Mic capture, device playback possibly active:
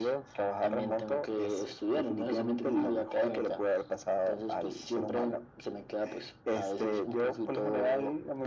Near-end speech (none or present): none